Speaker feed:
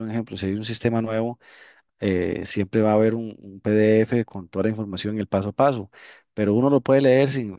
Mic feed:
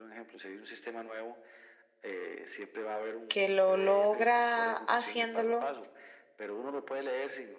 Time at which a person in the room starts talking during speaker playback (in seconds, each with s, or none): 3.3 s